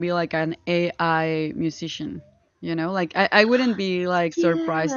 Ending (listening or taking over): listening